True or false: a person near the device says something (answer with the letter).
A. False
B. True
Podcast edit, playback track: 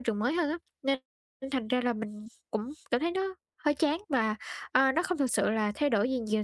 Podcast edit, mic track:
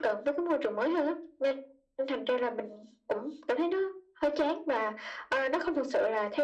A